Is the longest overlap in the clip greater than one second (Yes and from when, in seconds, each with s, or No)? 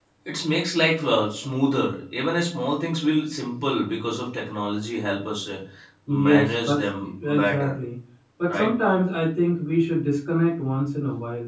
Yes, from 6.1 s